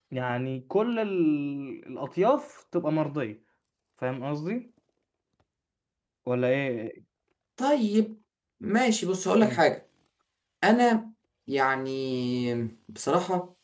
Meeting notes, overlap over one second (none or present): none